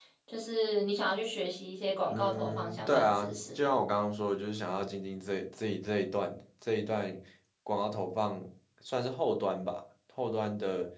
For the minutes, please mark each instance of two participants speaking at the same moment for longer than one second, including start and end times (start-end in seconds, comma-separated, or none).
2.1-3.8